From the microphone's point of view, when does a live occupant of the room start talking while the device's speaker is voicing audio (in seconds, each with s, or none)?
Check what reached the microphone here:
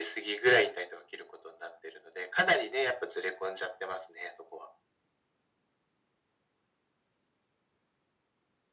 none